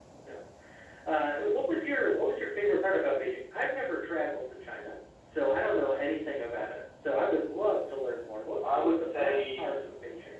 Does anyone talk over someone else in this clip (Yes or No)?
Yes